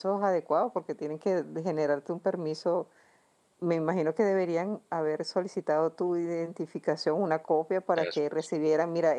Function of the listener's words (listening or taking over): listening